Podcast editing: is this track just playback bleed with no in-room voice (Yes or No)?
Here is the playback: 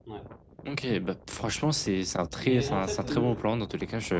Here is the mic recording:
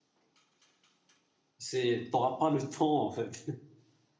No